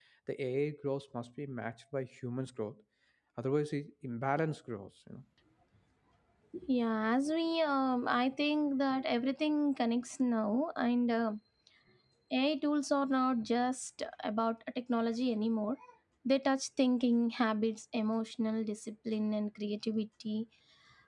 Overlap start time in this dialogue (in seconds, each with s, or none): none